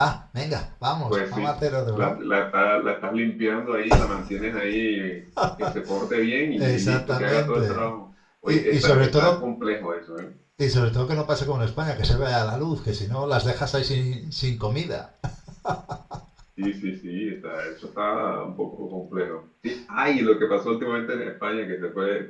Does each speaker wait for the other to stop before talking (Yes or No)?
No